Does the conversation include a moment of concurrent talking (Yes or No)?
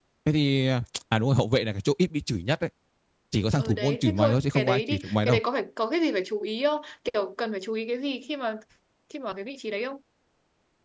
Yes